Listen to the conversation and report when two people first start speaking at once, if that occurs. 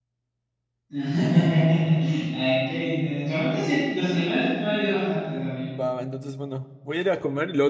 none

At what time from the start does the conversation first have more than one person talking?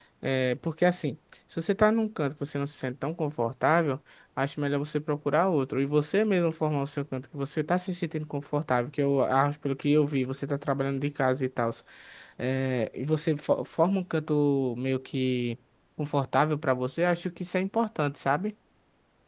none

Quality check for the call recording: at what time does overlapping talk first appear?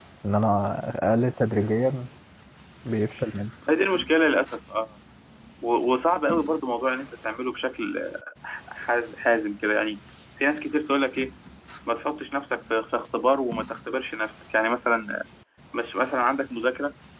none

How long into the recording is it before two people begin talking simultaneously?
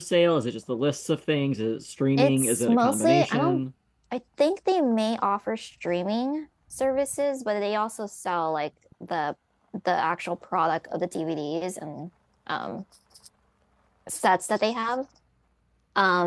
2 s

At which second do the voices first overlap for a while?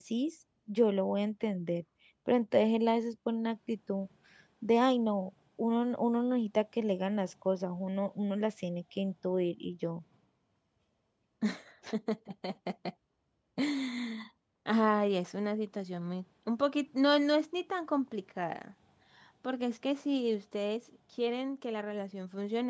none

